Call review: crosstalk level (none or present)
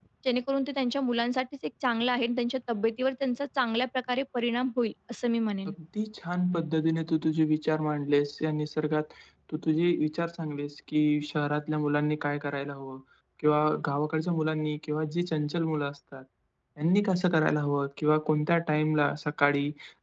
none